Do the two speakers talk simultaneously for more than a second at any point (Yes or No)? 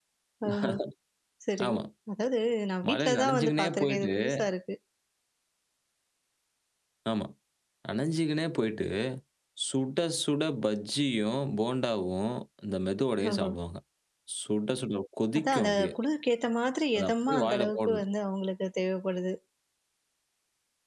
Yes